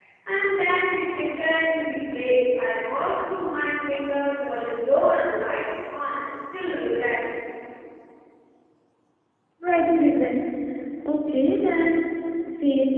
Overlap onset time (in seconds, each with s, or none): none